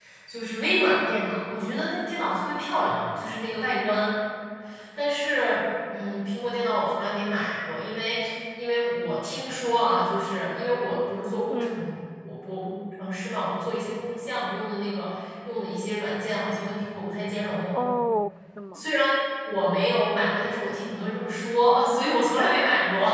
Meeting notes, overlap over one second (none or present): none